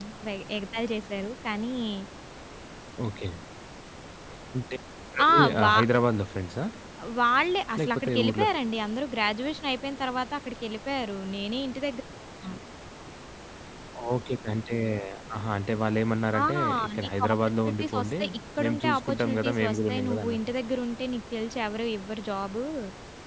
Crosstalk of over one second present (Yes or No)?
Yes